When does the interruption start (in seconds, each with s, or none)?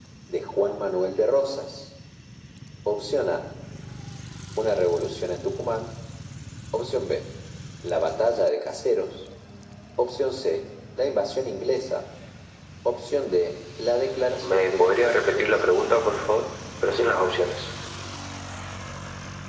14.4 s